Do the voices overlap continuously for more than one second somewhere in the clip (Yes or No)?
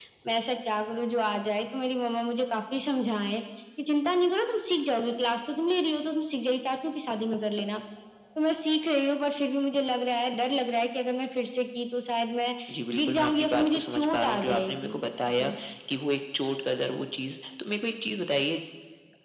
Yes